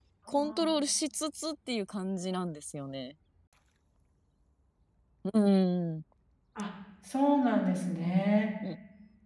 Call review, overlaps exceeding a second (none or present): none